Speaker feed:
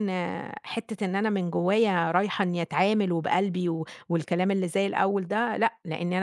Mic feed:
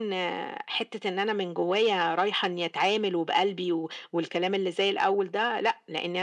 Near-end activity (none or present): none